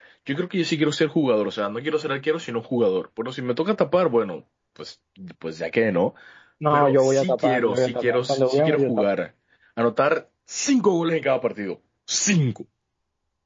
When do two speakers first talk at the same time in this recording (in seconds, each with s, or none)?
6.7 s